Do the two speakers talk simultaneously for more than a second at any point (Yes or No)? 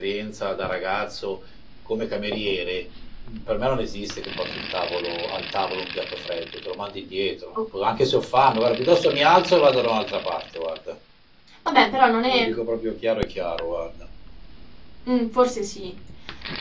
No